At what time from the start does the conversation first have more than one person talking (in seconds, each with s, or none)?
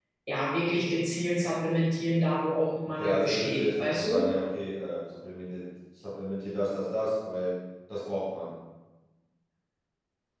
2.9 s